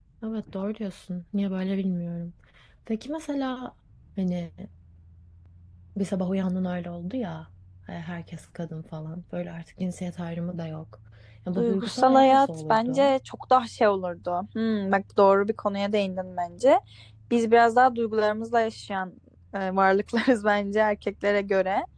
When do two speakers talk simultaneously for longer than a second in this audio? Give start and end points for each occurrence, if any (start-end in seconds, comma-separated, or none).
11.6-13.1